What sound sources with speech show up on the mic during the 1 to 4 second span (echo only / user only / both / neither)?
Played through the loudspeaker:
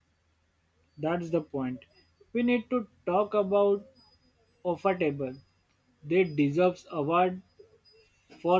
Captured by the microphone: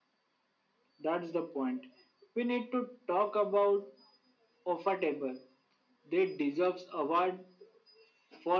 echo only